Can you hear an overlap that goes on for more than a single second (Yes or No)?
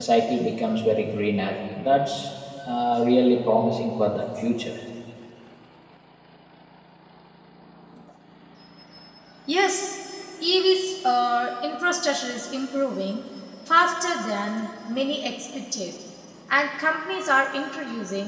No